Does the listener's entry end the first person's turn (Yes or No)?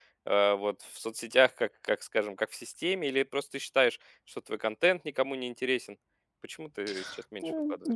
Yes